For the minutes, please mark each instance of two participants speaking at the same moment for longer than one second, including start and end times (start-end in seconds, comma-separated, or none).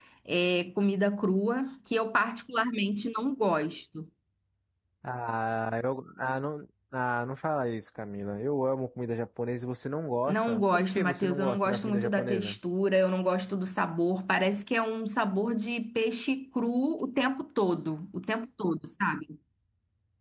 10.3-12.6